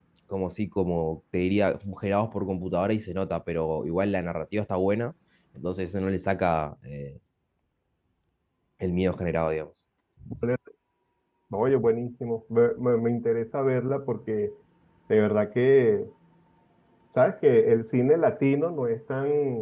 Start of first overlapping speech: none

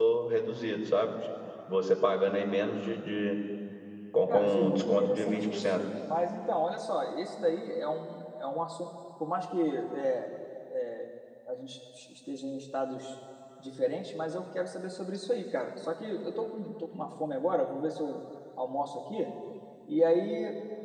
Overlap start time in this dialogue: 4.3 s

